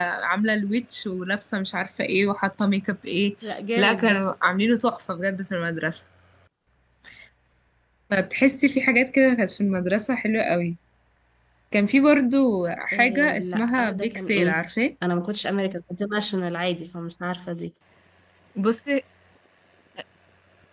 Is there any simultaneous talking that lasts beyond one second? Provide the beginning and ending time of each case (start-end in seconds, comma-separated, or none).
12.9-14.7